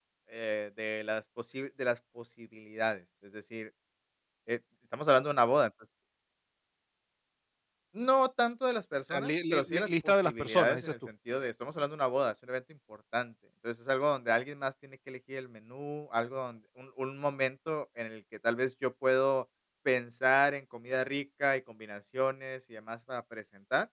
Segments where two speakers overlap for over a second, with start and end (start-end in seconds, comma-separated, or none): 9.1-10.9